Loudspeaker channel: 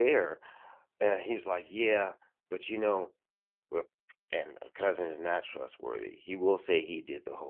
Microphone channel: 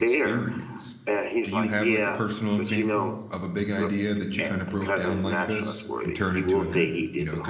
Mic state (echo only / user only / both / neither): both